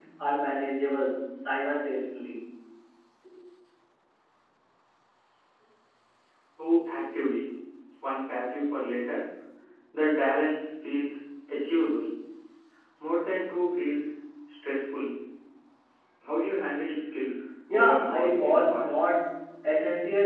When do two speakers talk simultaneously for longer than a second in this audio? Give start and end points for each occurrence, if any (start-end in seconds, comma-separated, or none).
17.7-18.9